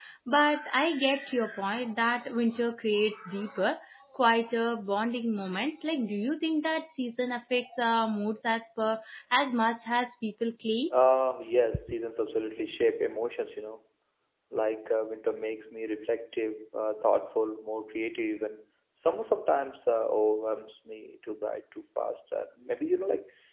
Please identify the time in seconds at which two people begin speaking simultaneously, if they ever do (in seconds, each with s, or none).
none